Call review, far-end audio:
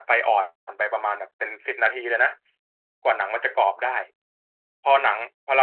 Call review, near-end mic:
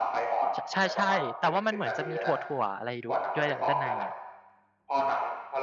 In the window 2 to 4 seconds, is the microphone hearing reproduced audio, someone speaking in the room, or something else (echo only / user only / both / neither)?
both